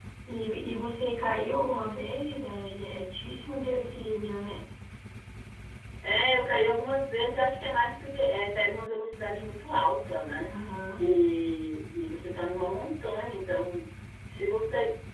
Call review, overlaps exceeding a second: none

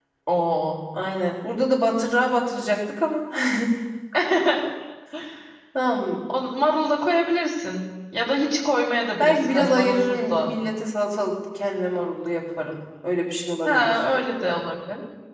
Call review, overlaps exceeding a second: present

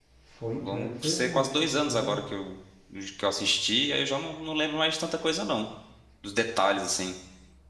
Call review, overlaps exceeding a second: present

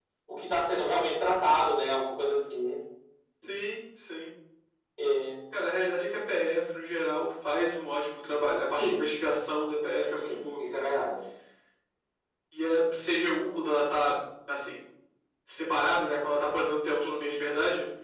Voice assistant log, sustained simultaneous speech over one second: none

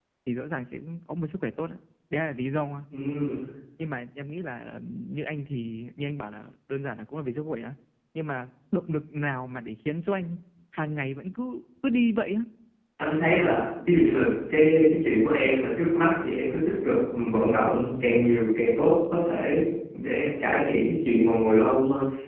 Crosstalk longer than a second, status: none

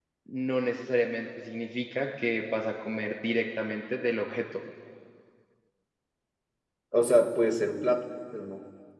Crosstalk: none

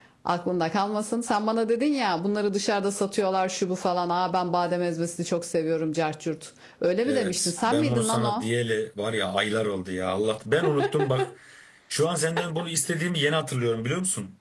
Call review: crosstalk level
present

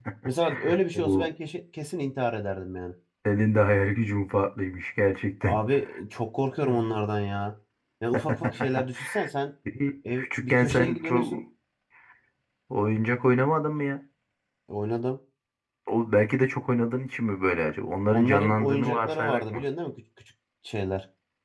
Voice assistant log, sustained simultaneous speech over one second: present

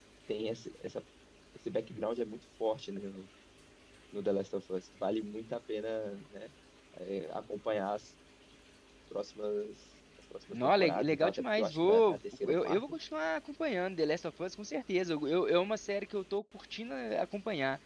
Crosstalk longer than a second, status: present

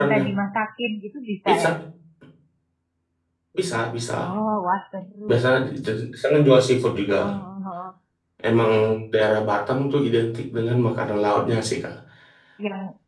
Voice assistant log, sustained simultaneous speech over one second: none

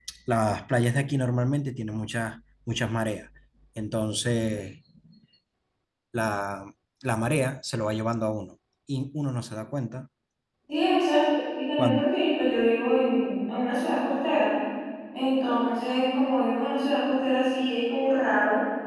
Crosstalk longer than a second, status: none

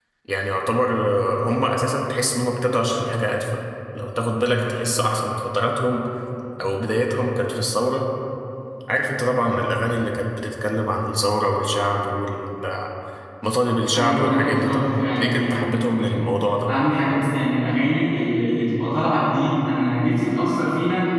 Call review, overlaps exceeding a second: present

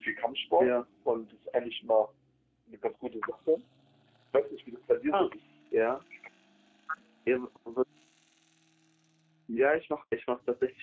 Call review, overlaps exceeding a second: none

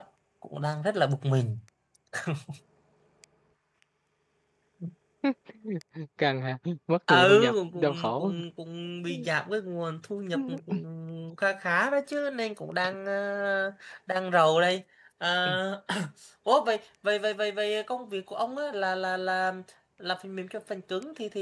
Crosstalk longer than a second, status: present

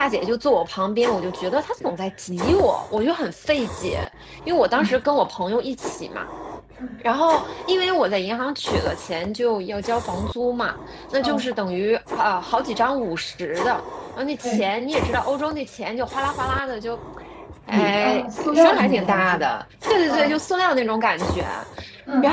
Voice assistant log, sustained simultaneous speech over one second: present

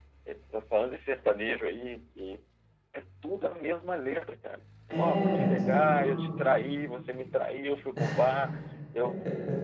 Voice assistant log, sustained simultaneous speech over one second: present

